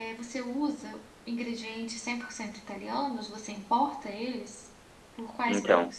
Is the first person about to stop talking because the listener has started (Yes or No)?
Yes